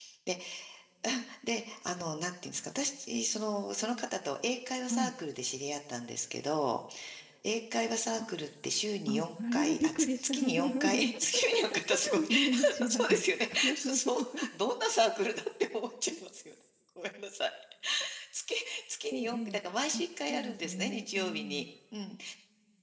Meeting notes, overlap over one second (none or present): present